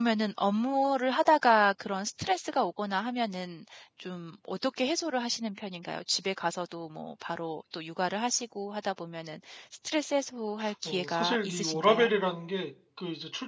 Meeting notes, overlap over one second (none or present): present